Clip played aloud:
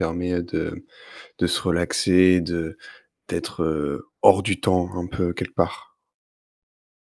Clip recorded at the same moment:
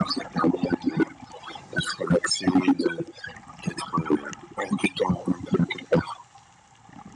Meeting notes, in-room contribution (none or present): none